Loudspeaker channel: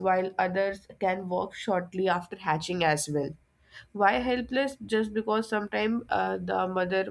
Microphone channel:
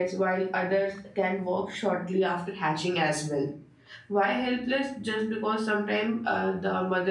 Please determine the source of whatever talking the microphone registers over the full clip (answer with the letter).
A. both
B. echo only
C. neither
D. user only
B